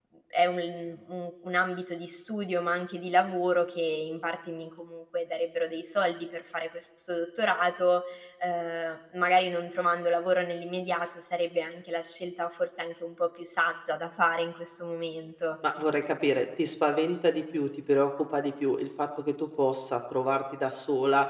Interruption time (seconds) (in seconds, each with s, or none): none